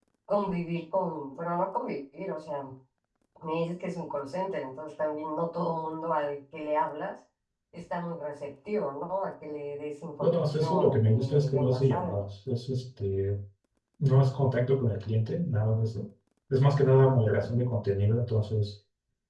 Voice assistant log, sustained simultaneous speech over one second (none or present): present